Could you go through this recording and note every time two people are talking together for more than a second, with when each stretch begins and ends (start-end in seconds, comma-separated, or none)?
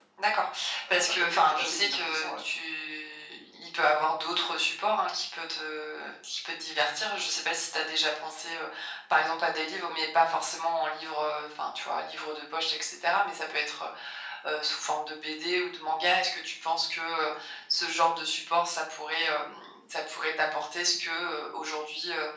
0.9-2.4